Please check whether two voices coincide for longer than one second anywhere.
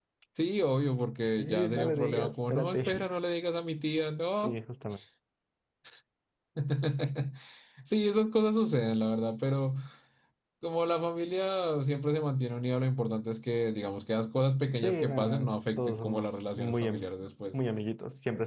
Yes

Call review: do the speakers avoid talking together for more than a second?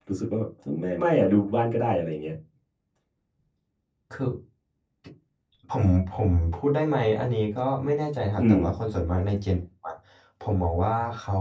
Yes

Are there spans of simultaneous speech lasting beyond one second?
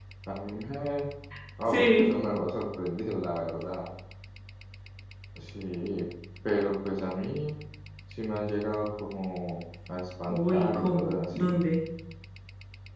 Yes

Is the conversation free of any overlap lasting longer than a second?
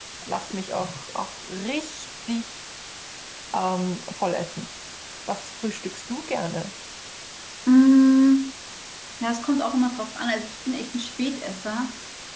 Yes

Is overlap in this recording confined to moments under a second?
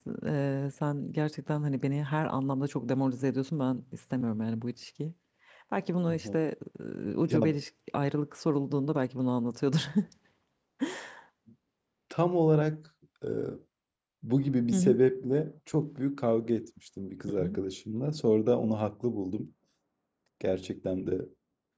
Yes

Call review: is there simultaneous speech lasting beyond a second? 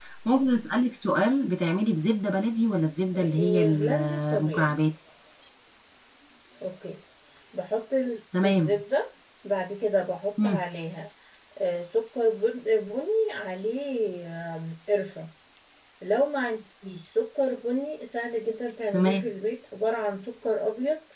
Yes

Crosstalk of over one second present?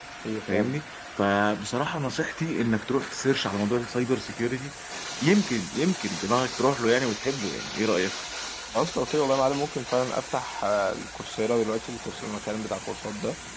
No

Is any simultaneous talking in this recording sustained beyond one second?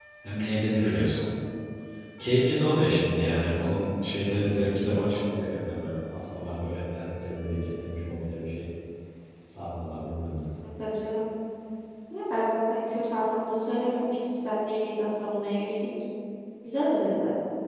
No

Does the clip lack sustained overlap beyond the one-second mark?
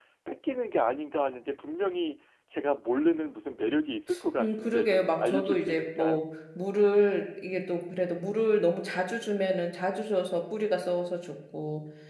No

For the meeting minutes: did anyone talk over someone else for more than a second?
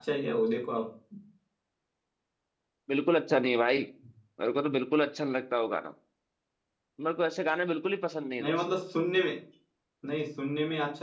No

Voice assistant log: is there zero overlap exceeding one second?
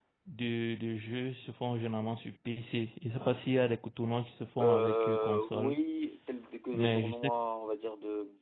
No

